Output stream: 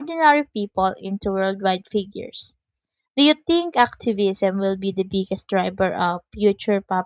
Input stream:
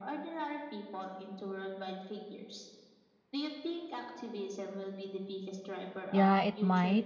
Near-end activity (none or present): present